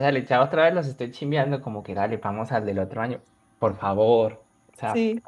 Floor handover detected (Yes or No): No